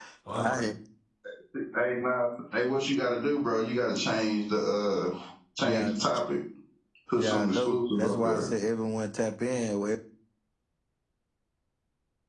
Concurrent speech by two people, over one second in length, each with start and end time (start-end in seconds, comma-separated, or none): 7.2-8.4